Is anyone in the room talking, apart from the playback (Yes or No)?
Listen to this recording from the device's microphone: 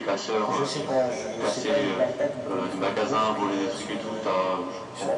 No